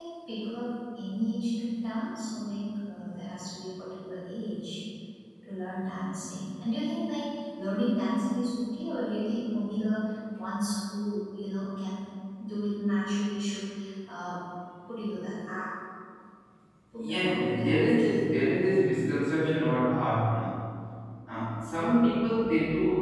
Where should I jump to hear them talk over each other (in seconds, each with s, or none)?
17.0 s